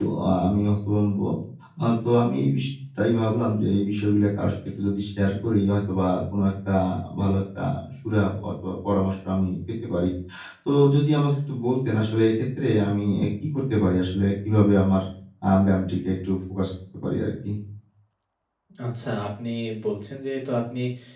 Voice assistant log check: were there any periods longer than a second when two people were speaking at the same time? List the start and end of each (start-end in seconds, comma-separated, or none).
none